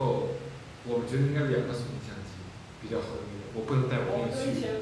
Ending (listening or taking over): taking over